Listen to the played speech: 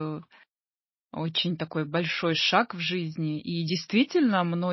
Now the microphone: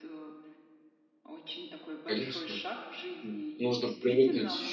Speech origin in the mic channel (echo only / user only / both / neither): both